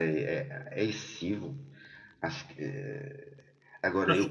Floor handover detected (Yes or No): Yes